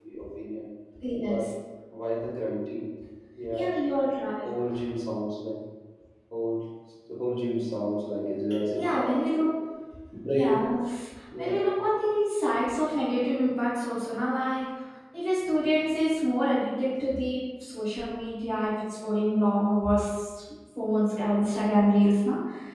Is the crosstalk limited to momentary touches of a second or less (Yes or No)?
Yes